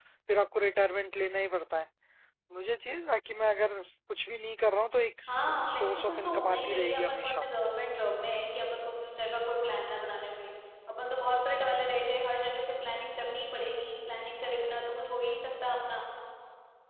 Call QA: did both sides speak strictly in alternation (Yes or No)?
No